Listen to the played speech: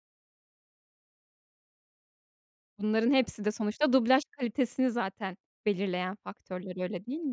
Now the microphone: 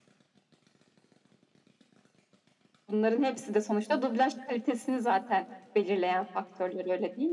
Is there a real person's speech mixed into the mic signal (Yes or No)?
No